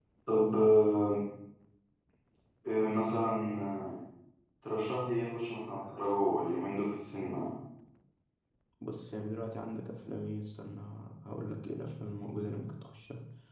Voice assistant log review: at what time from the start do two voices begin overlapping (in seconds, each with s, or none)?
none